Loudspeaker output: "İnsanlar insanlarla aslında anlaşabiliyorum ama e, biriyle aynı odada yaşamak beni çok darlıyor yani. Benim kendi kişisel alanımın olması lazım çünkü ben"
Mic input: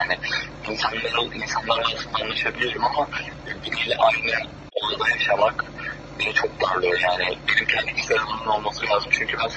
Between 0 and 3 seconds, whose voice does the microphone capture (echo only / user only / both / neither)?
echo only